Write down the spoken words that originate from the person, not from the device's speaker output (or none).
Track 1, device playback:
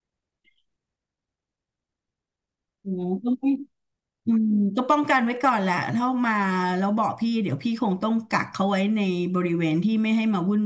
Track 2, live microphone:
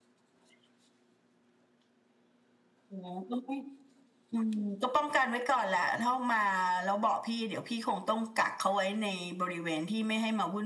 none